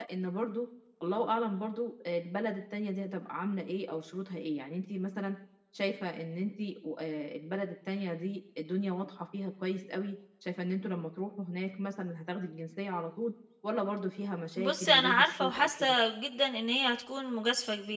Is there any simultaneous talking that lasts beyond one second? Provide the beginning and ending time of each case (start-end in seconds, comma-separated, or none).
14.6-15.9